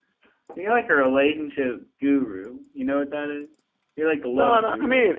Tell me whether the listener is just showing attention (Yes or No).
No